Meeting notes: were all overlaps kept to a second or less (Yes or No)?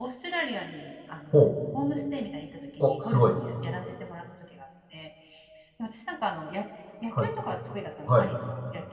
Yes